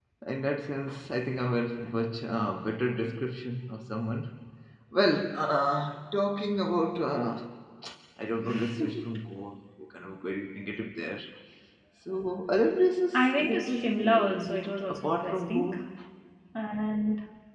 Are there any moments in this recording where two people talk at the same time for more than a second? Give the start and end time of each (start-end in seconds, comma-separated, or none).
13.1-15.7